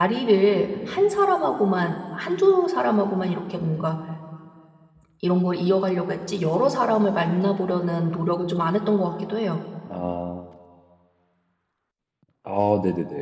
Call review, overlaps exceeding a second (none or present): none